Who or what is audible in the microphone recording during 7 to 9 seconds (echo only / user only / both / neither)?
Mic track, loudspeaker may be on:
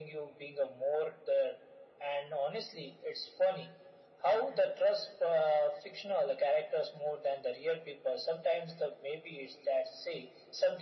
echo only